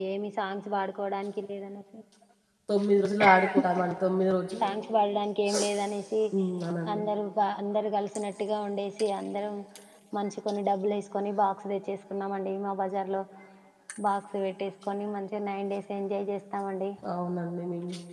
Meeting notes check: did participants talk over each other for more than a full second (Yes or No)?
No